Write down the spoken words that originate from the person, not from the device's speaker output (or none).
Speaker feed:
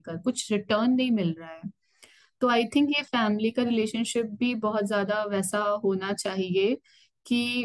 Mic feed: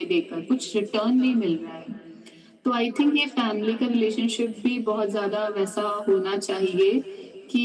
none